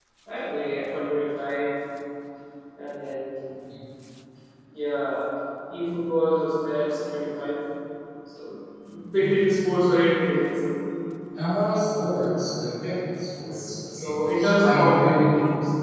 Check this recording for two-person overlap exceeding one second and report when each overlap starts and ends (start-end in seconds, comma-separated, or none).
13.5-15.3